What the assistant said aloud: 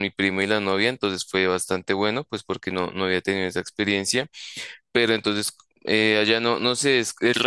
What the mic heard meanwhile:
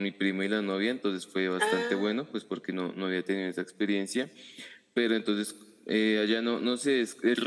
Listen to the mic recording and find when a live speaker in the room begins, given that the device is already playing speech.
1.6 s

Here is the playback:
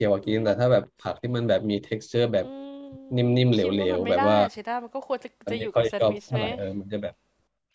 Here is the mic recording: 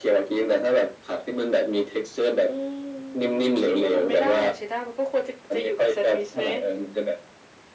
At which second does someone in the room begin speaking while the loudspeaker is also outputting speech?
none

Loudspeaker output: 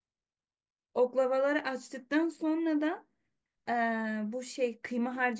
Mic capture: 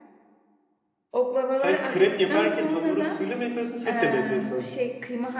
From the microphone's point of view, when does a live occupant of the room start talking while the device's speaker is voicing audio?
1.5 s

